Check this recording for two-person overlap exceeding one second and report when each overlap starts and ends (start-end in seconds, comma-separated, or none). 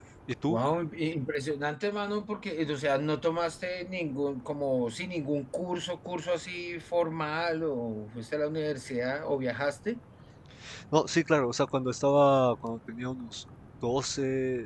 none